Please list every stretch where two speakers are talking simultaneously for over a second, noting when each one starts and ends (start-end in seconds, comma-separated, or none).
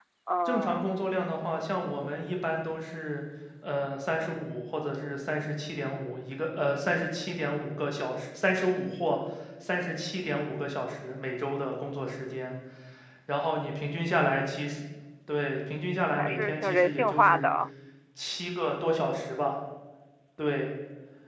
16.1-17.5